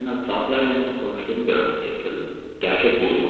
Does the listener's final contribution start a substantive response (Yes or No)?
Yes